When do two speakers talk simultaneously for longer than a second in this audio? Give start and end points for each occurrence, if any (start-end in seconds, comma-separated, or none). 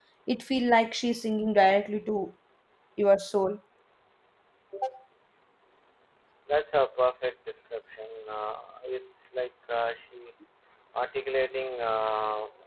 none